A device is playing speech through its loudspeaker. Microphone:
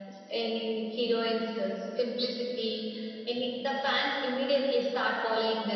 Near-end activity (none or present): none